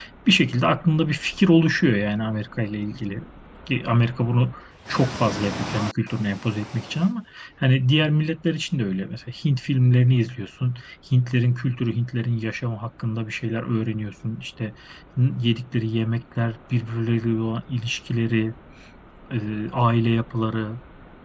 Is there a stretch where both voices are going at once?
No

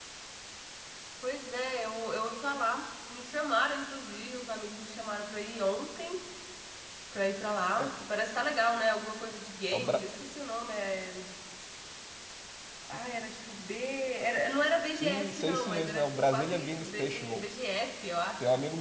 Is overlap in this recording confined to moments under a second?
No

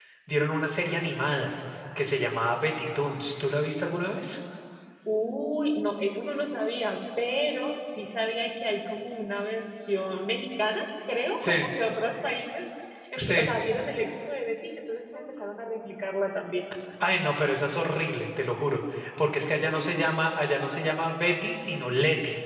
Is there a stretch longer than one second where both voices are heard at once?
No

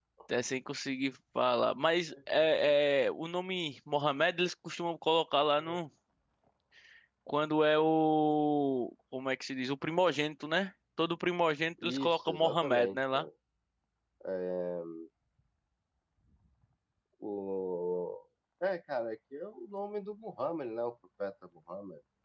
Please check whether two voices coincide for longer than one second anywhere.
Yes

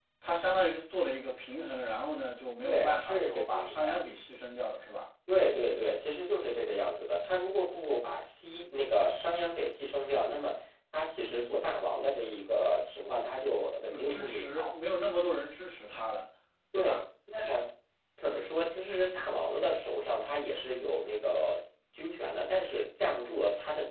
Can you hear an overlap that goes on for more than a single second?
Yes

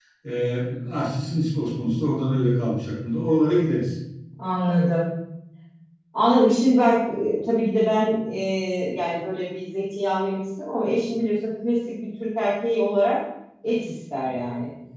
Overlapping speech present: No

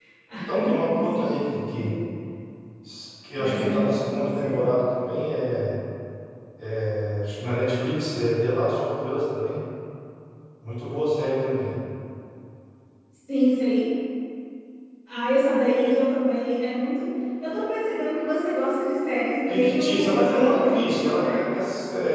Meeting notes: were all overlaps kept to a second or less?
No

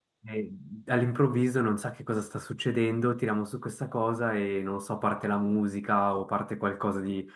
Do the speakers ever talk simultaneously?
No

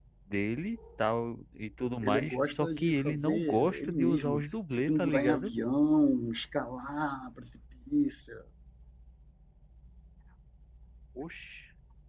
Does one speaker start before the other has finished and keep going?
Yes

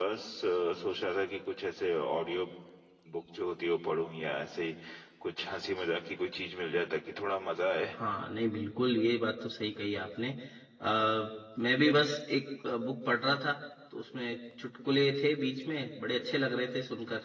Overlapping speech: No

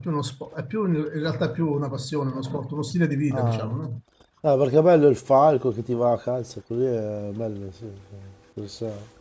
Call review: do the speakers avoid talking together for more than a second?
Yes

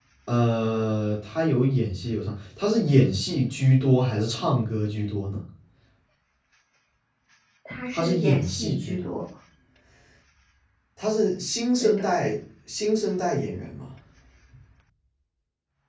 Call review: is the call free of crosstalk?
No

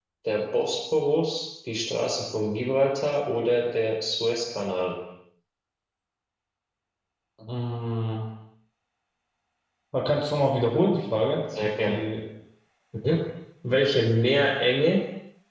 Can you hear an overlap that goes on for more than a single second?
No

